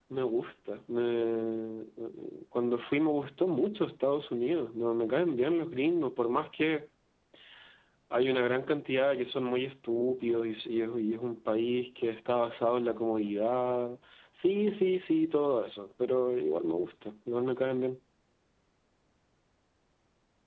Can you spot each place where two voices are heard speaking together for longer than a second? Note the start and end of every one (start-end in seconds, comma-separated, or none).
none